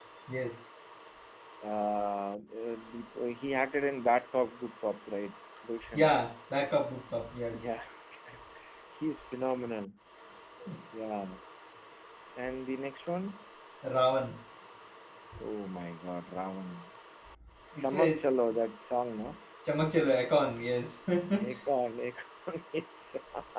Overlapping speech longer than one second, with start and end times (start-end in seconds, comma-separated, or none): none